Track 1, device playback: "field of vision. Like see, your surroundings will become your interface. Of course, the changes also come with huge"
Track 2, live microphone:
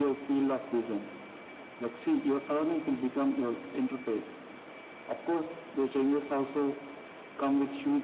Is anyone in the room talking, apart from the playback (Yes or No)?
No